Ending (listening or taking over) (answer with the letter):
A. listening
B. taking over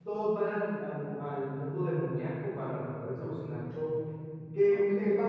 A